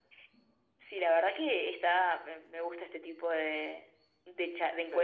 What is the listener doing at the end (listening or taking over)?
listening